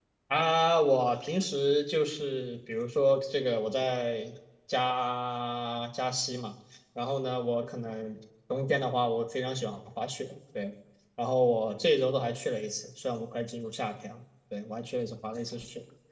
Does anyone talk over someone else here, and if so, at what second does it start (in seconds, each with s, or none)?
none